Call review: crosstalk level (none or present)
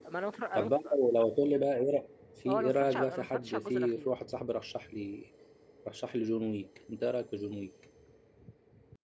present